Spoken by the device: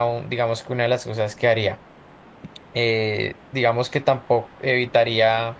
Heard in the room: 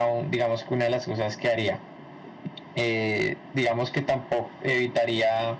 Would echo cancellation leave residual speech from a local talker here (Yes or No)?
No